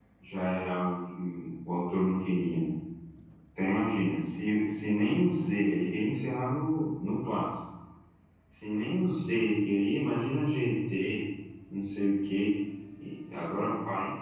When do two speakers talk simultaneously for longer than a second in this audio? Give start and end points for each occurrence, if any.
none

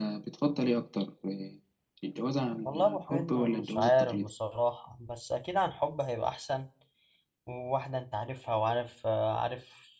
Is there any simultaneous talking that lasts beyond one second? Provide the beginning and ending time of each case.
2.6-4.3

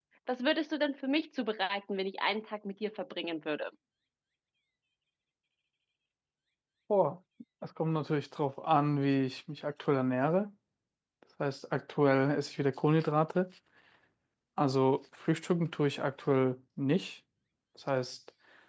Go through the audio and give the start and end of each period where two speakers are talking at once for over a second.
none

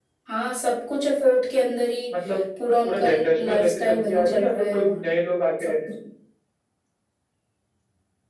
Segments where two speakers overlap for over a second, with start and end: 2.8-5.0

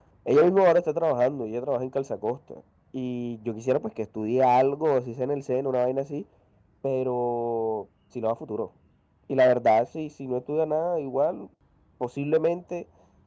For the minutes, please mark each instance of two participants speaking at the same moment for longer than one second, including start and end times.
none

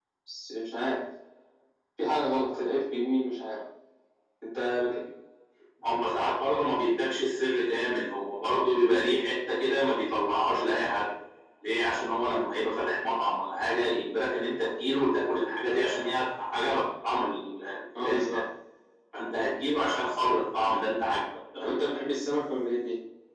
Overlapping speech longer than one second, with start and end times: none

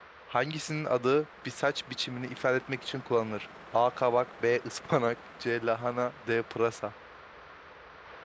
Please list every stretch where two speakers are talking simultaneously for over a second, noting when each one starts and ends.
none

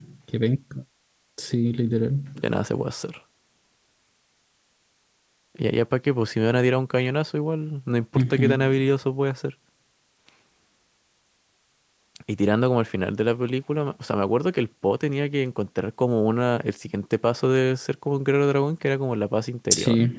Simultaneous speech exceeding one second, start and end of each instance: none

